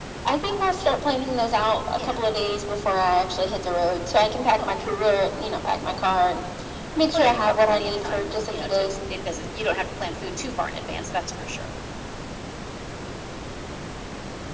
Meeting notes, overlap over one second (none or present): present